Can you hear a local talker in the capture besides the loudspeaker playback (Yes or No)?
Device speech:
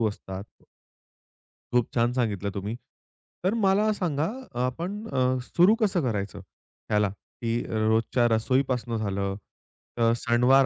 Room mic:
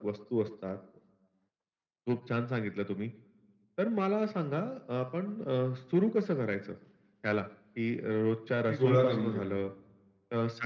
Yes